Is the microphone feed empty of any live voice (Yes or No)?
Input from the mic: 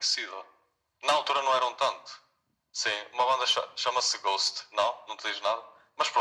Yes